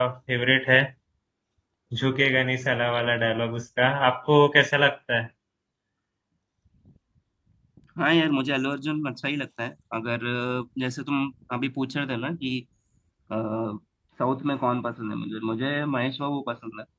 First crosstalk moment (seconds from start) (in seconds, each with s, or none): none